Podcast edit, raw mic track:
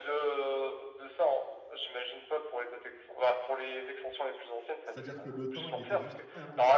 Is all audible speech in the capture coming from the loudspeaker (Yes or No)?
No